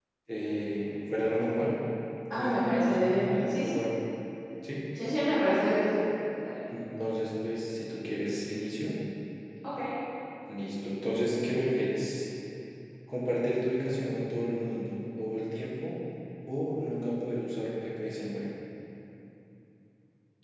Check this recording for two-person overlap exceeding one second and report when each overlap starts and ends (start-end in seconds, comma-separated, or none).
2.4-3.8